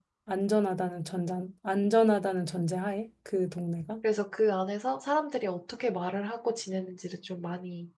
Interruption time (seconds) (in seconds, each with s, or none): none